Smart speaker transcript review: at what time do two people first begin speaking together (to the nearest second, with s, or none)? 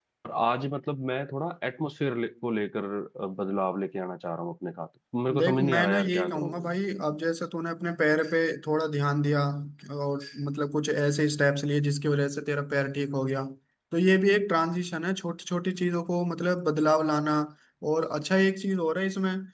5 s